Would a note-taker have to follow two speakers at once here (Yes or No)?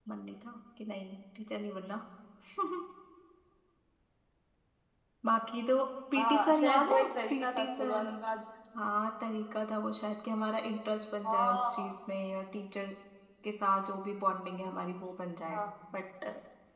Yes